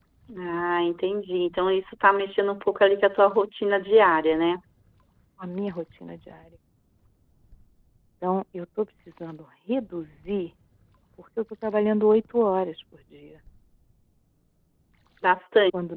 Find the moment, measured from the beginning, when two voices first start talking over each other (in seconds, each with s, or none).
none